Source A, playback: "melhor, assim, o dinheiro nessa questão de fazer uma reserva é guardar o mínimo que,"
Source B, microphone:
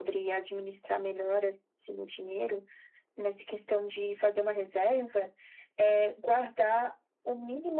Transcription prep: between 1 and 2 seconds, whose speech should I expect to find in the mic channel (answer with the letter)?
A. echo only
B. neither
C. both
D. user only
A